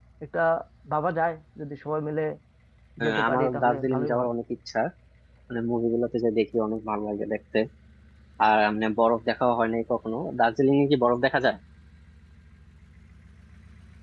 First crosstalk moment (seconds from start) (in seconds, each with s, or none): 3.0 s